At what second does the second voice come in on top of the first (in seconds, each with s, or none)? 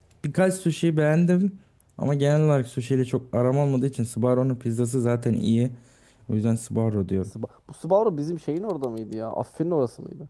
none